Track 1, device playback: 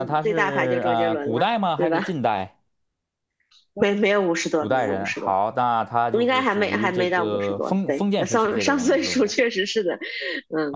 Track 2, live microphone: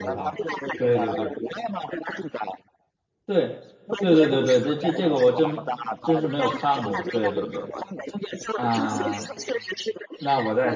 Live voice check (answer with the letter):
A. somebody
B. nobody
A